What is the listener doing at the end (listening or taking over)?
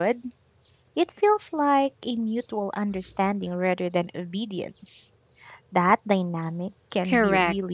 taking over